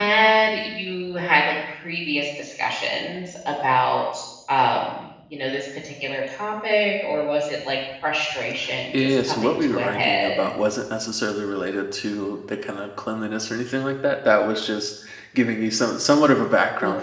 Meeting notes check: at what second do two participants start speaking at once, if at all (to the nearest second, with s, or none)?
9 s